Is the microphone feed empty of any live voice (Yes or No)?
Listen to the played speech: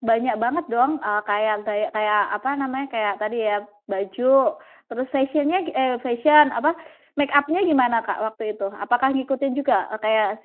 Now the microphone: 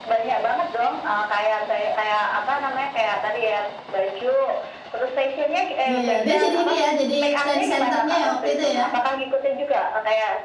No